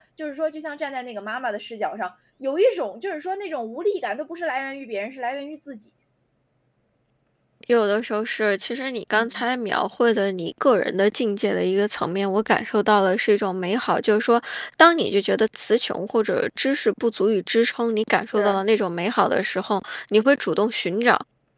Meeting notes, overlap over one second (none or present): none